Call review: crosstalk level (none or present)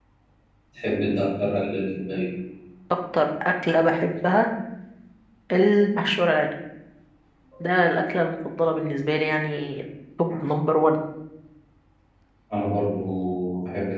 none